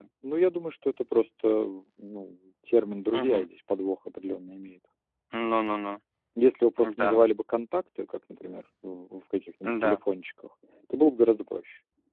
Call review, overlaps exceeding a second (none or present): none